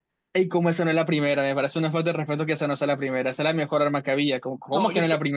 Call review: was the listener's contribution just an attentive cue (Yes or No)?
No